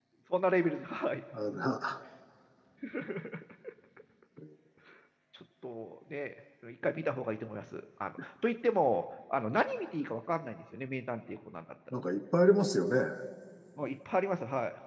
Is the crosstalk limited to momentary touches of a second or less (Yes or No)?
Yes